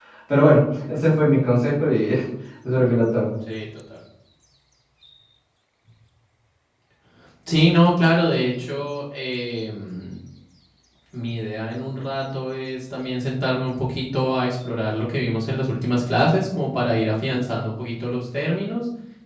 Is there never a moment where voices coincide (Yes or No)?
Yes